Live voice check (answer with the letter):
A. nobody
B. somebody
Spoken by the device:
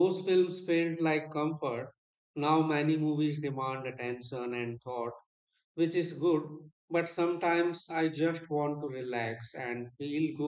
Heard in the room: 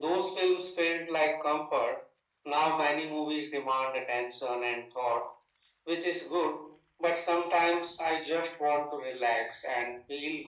A